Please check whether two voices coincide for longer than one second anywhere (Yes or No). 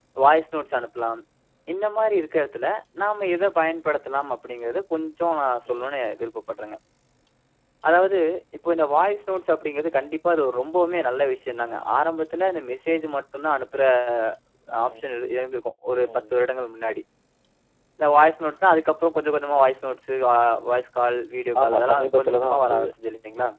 Yes